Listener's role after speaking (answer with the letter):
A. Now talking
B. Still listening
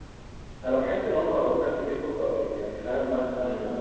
B